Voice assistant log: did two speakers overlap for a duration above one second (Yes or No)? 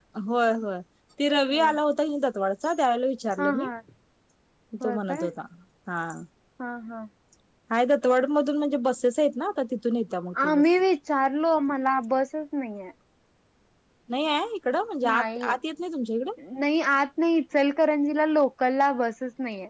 No